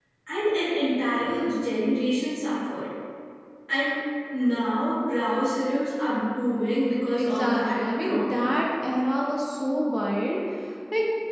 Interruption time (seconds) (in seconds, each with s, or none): 7.2 s